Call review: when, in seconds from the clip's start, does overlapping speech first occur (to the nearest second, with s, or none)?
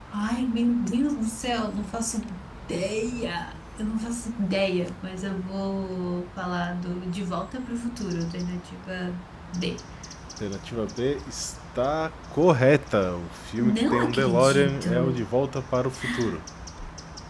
14 s